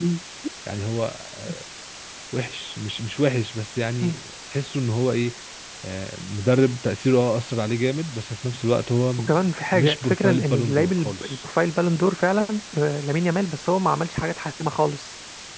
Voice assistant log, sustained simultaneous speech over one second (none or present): present